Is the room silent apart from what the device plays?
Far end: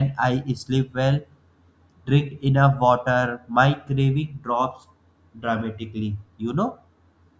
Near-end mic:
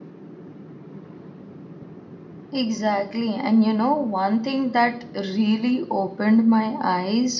No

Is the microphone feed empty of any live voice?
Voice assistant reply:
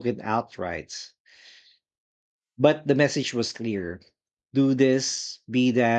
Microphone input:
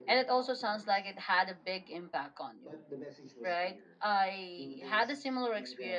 No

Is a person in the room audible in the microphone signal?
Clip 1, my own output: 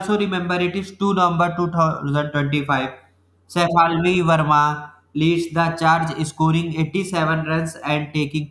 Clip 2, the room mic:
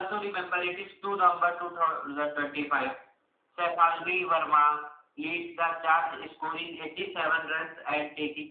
No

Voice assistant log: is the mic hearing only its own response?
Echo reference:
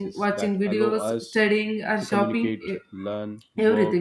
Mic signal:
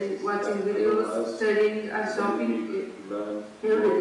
Yes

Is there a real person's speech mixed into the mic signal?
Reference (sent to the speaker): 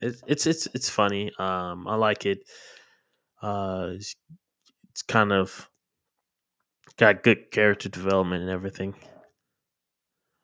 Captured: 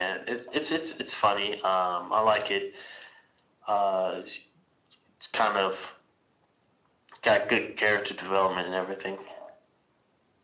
No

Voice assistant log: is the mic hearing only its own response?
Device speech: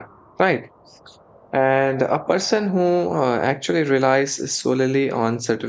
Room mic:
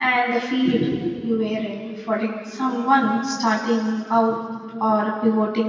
No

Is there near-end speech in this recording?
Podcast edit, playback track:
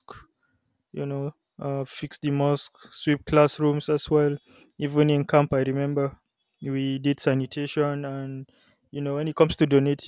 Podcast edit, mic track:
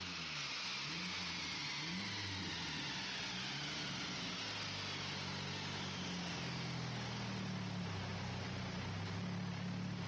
No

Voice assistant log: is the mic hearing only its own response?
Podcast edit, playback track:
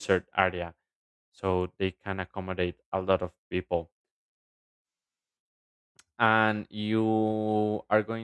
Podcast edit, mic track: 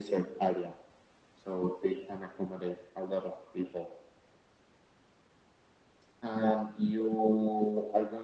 Yes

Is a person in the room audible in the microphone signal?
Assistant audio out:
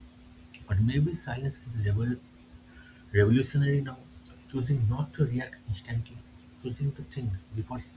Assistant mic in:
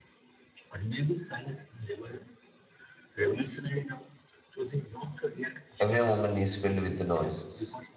Yes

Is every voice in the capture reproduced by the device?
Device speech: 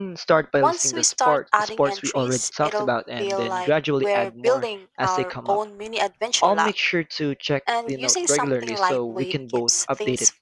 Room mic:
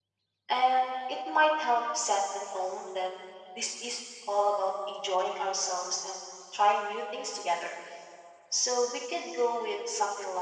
No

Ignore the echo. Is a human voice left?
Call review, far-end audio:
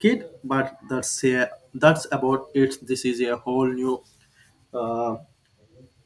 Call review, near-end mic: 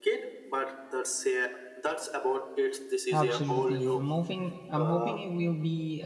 Yes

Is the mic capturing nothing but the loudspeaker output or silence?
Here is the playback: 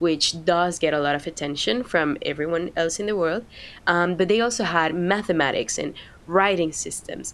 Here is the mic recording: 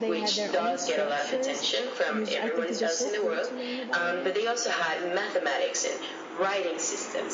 No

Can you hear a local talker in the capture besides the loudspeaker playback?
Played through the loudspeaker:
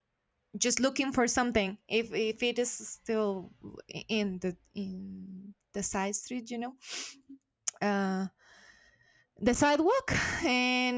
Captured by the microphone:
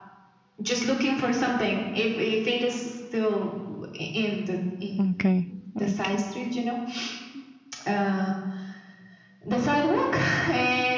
Yes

